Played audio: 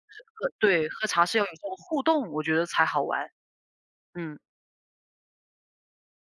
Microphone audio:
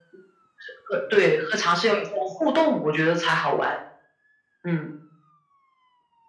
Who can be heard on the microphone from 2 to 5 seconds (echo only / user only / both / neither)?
echo only